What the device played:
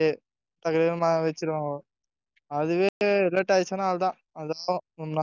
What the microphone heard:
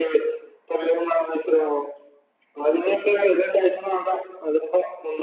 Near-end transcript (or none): none